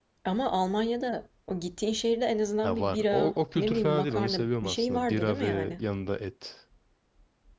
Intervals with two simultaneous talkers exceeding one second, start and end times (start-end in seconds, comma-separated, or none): 2.6-5.8